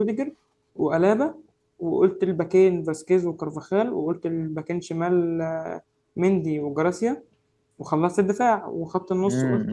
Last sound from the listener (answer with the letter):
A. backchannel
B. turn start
B